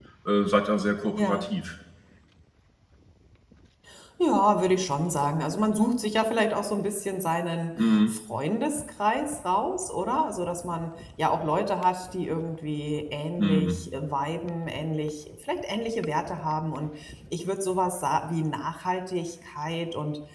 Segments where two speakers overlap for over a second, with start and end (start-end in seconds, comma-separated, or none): none